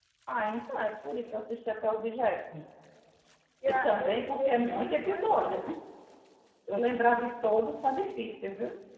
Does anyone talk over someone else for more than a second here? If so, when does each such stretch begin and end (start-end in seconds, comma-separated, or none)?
3.7-5.7